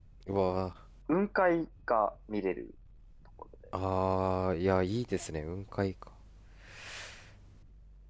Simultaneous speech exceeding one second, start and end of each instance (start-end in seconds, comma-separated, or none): none